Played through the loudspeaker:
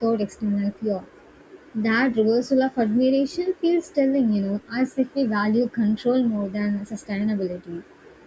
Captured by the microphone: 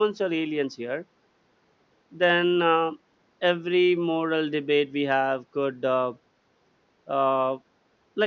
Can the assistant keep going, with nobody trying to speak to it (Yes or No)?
No